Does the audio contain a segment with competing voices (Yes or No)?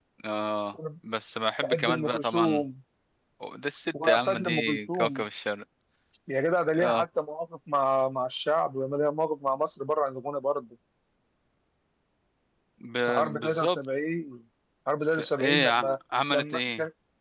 Yes